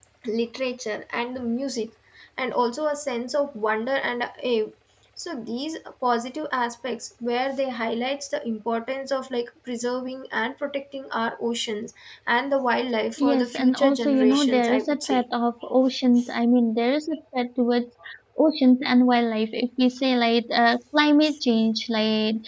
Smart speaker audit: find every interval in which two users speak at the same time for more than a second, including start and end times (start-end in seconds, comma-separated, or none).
13.2-15.2